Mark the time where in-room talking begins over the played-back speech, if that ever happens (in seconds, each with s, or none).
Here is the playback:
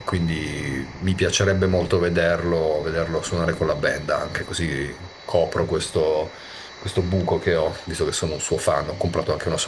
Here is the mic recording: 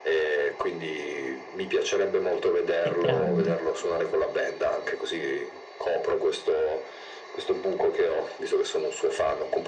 2.8 s